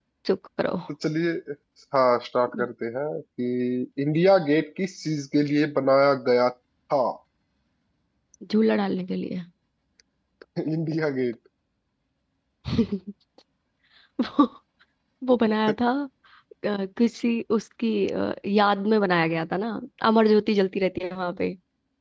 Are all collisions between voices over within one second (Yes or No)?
Yes